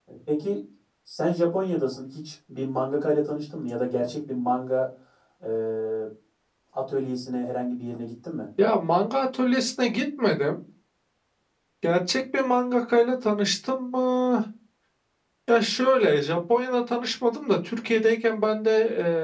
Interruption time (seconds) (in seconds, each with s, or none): none